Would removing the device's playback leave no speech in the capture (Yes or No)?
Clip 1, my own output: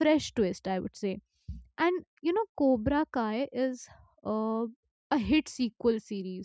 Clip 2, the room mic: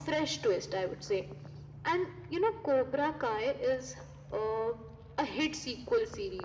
Yes